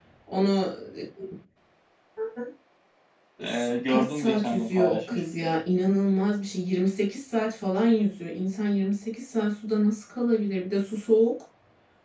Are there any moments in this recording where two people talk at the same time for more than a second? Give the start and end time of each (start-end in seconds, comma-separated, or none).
3.4-5.6